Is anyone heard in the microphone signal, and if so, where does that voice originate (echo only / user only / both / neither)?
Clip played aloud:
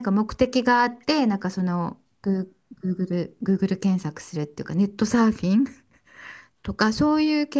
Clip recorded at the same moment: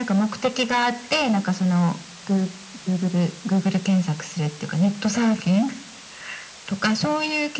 echo only